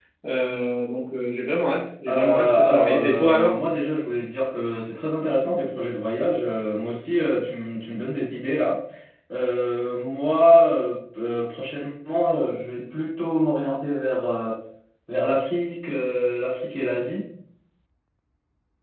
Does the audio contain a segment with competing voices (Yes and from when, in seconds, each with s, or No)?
Yes, from 2.1 s